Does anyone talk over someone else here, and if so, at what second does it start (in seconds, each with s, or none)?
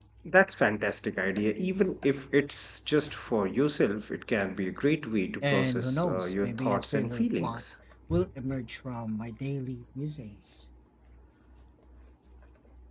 5.4 s